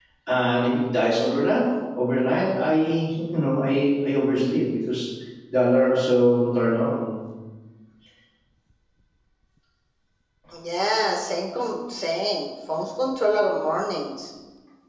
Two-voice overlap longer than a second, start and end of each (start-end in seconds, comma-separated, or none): none